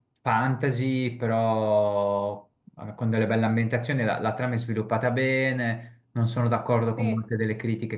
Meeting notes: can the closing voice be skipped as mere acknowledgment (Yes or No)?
Yes